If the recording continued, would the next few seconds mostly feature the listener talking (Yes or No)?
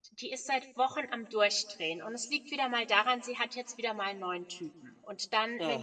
No